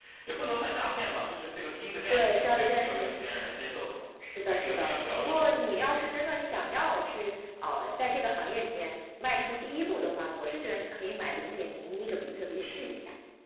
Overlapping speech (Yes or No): Yes